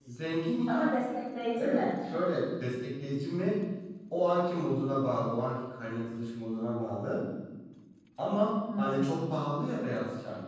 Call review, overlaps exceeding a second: none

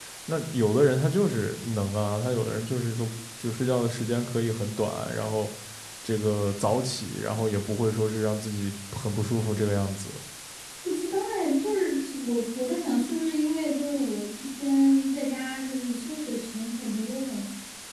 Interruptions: none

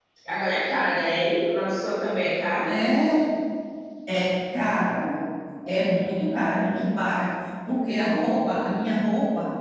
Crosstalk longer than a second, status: none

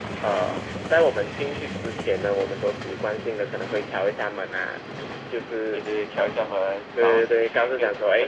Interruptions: present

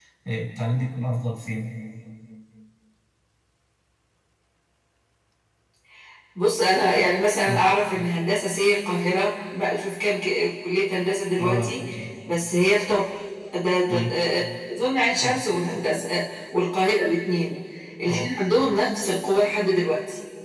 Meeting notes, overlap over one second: none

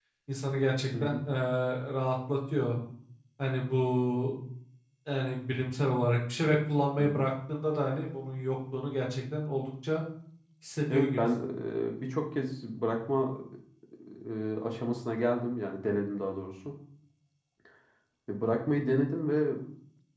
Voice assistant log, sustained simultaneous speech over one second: none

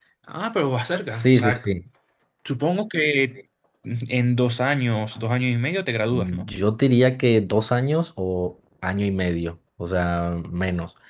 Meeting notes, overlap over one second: none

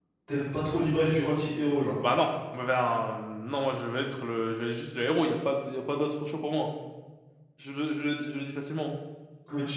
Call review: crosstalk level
none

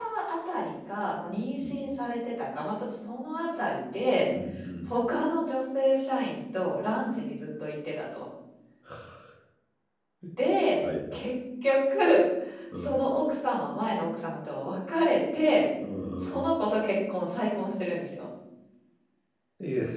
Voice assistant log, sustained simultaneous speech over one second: none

